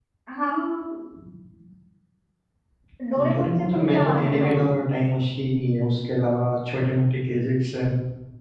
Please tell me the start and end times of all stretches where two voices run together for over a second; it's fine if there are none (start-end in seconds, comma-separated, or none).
3.3-4.7